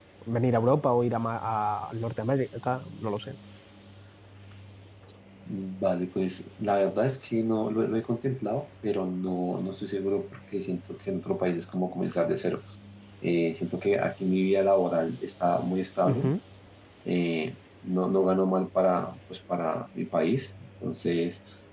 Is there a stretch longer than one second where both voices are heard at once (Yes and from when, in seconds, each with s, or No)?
No